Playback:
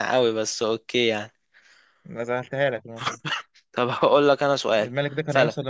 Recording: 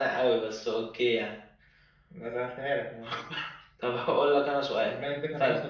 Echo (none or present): present